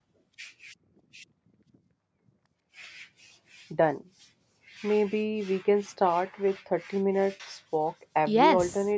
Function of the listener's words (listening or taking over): taking over